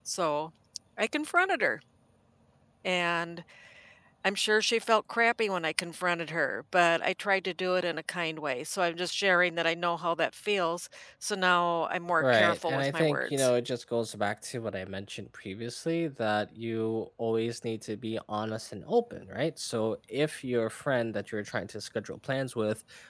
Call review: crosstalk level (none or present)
present